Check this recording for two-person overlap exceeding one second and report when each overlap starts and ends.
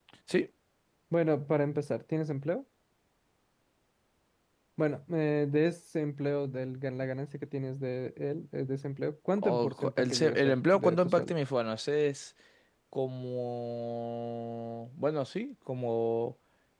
9.4-11.3

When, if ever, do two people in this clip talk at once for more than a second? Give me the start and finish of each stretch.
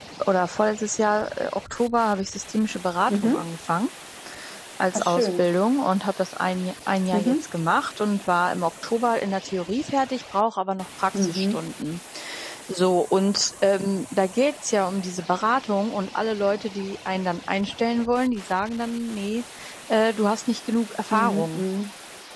none

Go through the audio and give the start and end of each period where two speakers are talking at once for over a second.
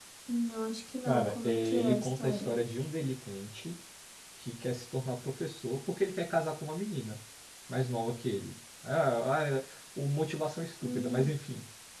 1.1-2.6

